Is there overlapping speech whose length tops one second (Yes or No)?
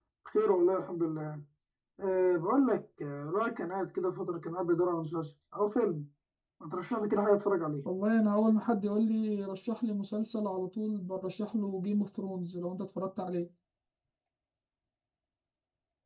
No